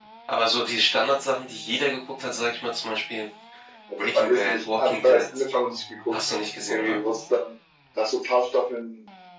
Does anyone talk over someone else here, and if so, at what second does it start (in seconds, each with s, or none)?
4.0 s